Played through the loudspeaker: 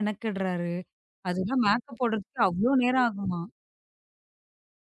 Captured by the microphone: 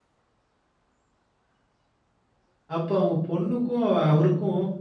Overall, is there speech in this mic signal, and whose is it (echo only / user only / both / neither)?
user only